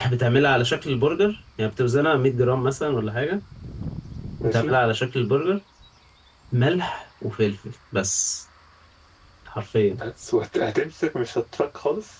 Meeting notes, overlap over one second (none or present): none